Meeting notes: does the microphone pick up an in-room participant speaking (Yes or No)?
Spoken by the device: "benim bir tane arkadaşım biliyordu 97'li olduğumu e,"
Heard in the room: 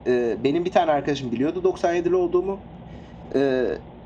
No